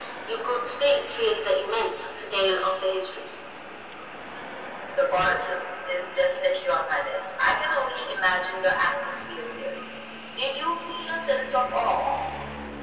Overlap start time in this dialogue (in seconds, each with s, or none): none